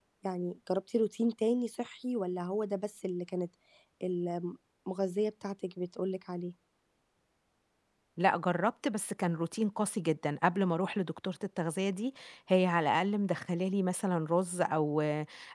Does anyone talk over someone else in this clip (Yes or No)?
No